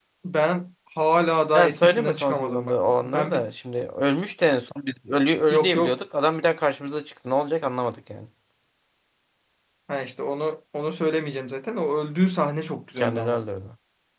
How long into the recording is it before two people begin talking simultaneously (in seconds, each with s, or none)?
1.5 s